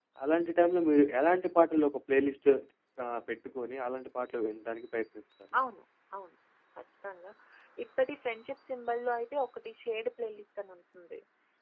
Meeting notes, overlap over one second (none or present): none